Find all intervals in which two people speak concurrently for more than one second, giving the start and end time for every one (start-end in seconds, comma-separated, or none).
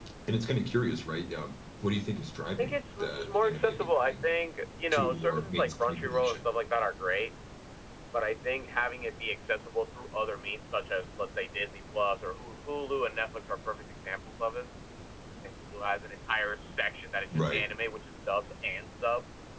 2.6-4.2, 4.9-6.4